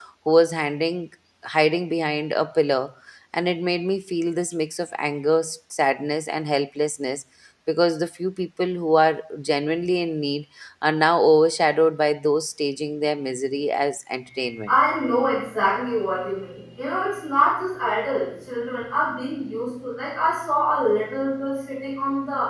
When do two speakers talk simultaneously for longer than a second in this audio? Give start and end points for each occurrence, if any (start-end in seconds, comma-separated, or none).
none